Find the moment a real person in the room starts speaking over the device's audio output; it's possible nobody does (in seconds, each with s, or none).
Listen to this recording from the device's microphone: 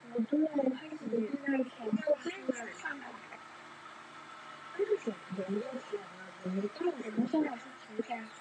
0.9 s